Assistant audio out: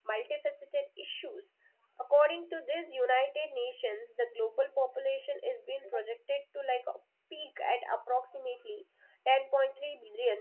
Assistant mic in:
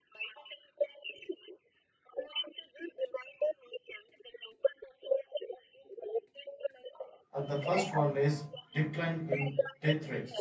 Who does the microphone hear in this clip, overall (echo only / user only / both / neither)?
both